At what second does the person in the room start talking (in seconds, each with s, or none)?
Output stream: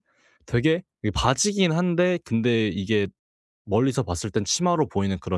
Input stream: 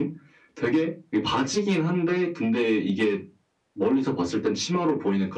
none